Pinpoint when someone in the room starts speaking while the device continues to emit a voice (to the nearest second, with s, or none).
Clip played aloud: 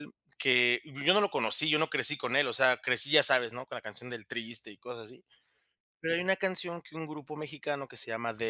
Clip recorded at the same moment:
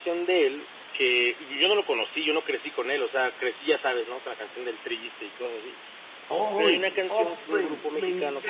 6 s